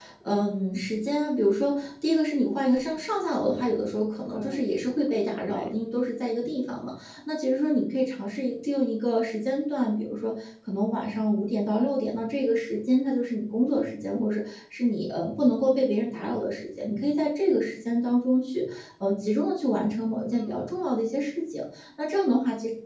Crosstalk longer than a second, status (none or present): none